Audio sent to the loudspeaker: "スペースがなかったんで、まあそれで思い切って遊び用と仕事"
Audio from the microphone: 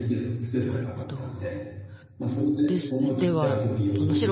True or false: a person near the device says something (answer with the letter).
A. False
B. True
B